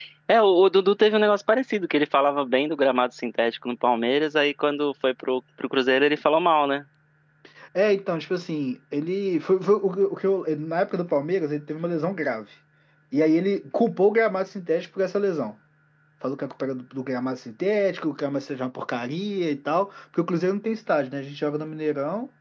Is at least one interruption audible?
No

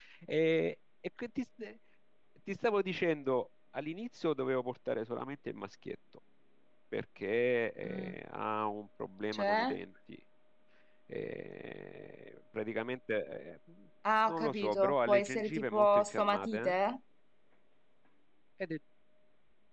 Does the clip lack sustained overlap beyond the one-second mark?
No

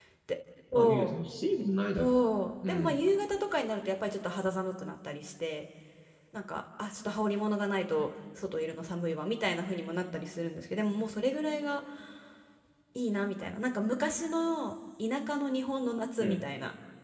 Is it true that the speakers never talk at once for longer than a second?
Yes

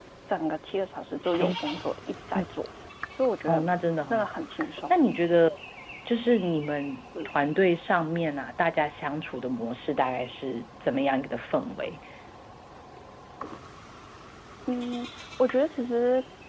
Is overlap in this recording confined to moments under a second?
Yes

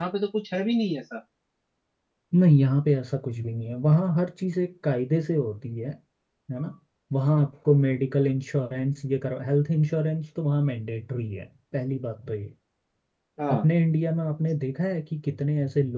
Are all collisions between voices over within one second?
Yes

